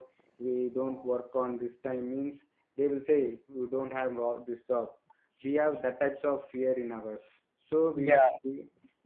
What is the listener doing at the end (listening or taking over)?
listening